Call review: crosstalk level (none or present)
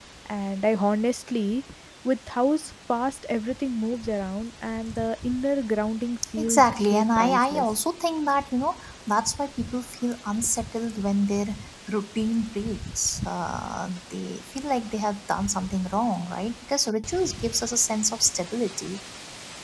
present